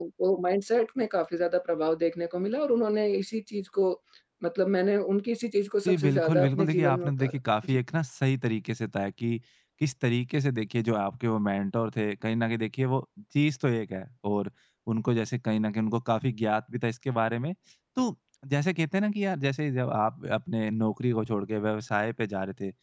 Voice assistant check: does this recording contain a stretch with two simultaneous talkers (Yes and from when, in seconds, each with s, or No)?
Yes, from 5.8 s